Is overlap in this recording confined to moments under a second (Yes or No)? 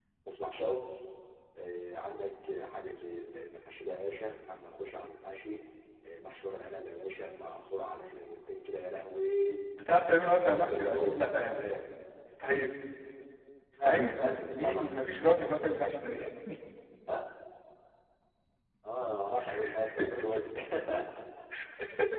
No